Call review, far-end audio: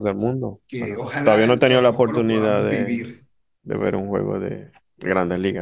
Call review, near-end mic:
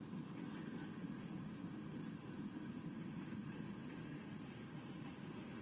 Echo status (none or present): none